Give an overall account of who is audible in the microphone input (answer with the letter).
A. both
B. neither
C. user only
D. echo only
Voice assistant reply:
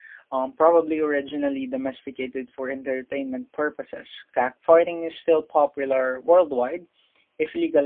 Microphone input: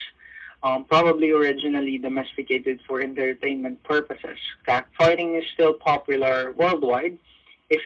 D